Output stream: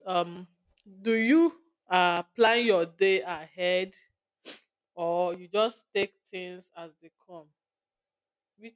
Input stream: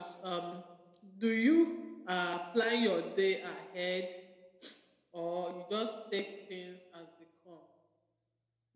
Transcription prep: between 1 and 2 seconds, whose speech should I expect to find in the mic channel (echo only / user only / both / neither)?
echo only